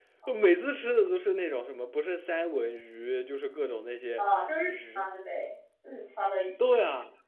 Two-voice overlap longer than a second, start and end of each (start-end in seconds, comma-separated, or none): none